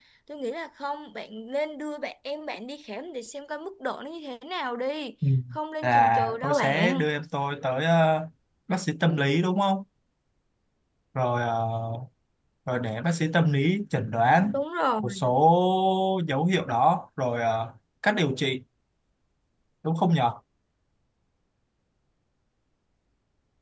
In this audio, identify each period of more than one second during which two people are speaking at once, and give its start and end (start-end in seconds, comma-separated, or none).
5.8-7.1